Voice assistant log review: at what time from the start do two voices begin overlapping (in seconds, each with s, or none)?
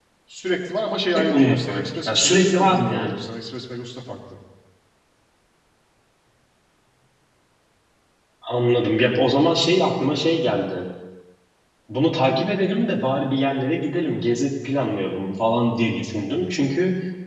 1.1 s